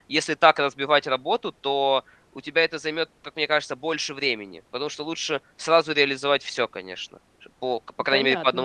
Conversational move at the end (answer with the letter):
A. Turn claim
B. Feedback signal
A